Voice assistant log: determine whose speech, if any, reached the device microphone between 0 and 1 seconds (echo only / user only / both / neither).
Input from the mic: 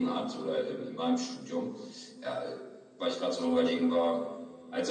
echo only